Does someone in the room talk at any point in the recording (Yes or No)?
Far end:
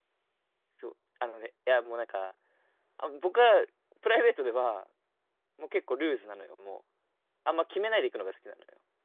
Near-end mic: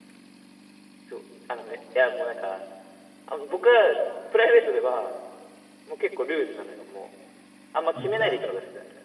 Yes